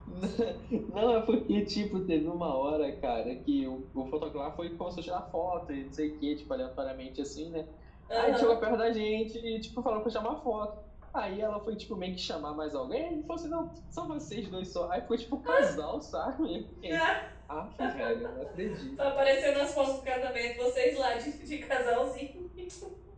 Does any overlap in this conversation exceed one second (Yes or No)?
No